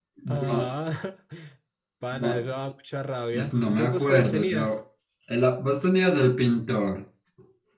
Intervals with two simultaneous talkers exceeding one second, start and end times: 3.3-4.7

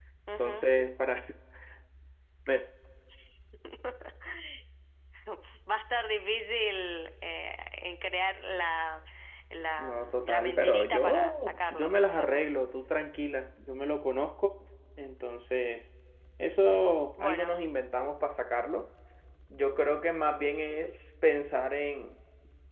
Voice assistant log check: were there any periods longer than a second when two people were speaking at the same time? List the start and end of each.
9.8-12.5

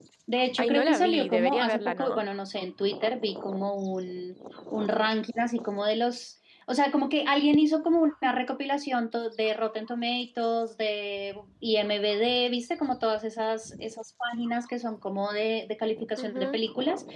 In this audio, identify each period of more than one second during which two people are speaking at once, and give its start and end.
0.6-2.2

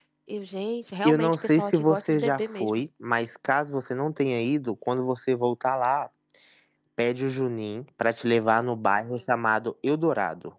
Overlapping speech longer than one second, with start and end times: 1.0-2.7

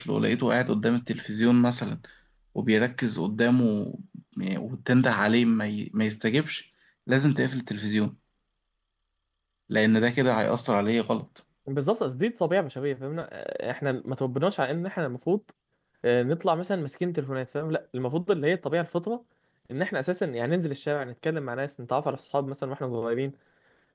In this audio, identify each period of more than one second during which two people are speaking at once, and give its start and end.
none

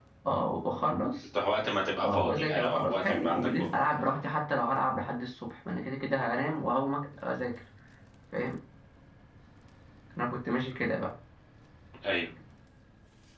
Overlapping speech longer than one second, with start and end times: 2.0-3.9

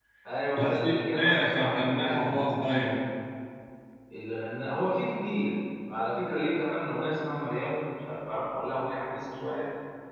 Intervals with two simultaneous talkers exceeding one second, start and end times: 0.6-2.4

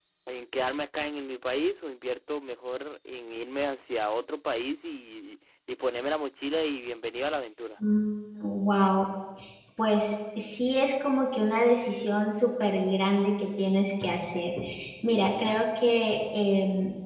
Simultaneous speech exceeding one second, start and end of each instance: none

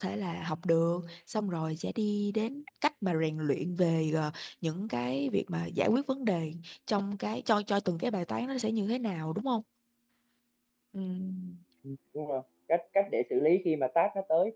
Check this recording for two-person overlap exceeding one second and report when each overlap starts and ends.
none

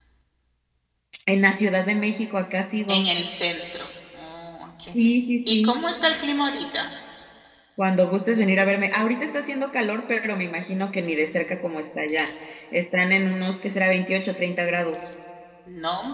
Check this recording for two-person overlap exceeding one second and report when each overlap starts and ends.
none

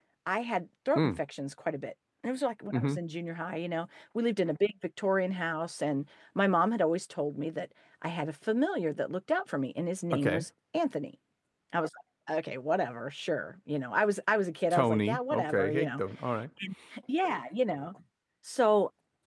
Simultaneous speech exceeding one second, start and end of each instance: 14.7-16.0

